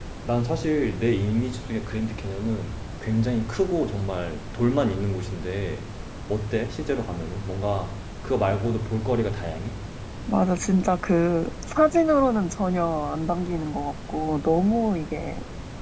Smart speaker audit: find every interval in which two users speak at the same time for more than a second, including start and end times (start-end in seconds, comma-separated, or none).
none